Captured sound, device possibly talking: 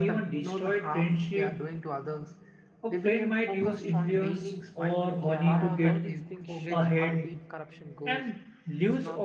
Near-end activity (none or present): present